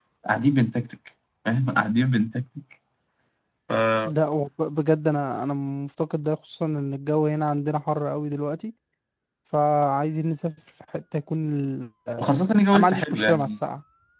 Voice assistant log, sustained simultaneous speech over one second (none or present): present